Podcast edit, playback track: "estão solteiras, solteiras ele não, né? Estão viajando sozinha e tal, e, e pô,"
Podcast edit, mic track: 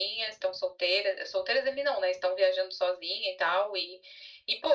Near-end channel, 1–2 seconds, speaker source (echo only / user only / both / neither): echo only